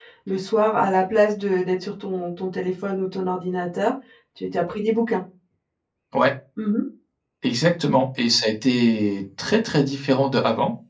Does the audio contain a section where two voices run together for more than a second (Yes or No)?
No